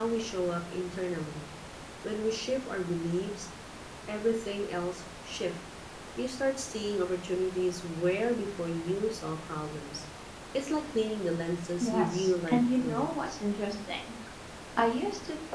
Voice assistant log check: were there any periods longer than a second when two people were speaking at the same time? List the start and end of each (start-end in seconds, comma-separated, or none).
11.8-13.1